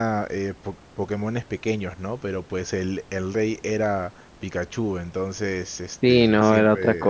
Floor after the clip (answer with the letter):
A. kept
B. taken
B